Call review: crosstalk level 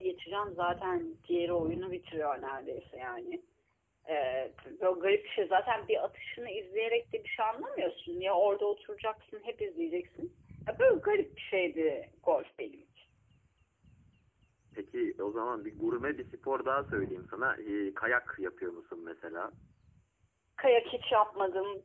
none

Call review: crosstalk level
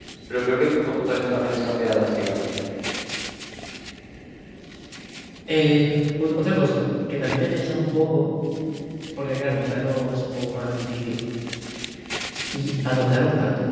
none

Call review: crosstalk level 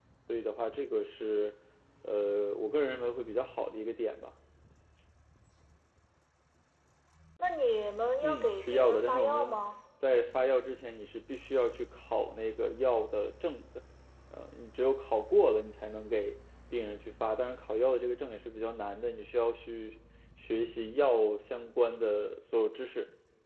present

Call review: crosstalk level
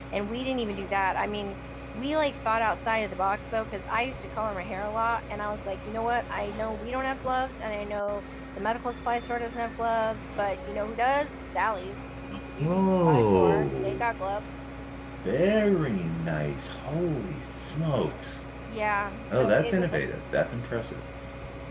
present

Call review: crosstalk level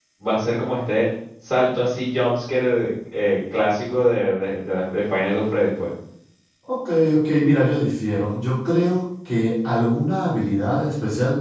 none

